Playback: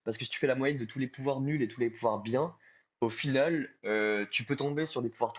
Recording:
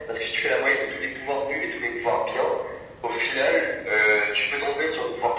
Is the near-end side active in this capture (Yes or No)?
No